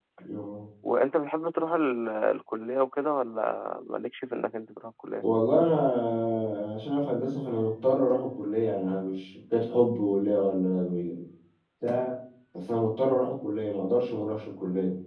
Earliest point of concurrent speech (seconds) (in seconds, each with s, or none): none